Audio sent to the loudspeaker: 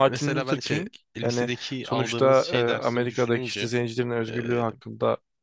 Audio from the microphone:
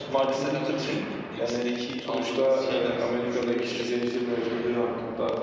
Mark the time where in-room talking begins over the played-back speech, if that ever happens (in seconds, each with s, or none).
none